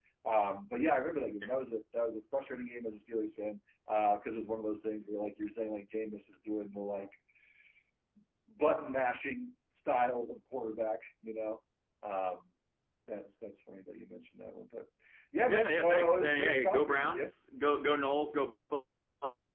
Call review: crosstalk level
present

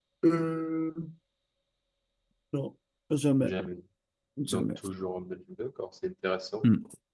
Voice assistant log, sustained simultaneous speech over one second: none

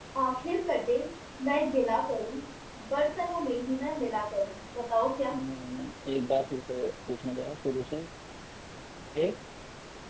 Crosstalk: none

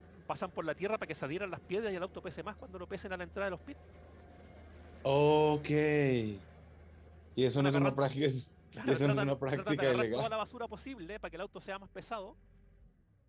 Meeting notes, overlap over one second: present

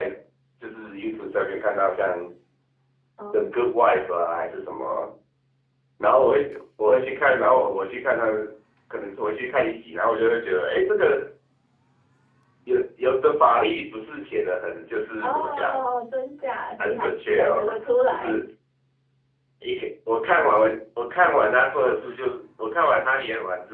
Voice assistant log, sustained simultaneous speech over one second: present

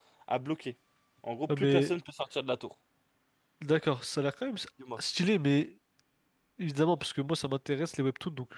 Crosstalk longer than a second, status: none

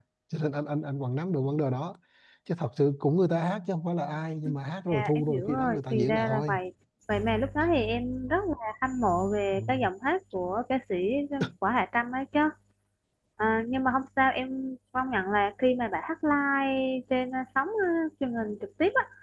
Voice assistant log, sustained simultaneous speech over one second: present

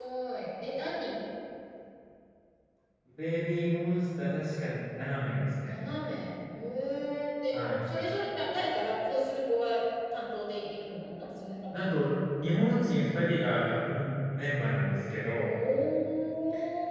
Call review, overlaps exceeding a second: none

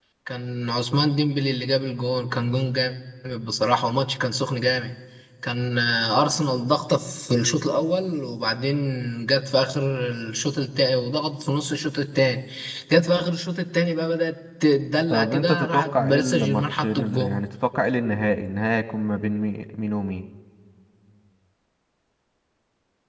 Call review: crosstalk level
present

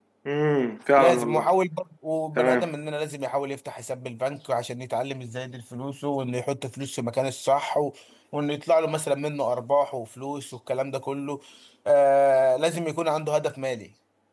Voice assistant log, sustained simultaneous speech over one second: none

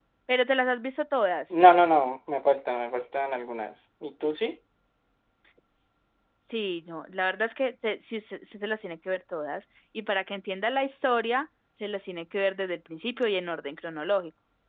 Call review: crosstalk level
none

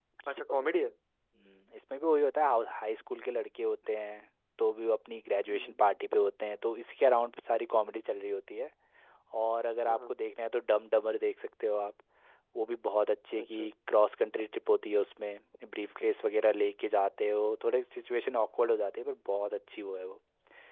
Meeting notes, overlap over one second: none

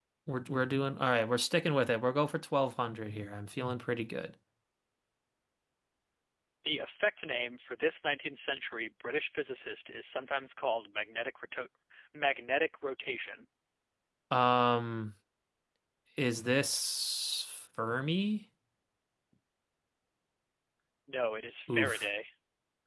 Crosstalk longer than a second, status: none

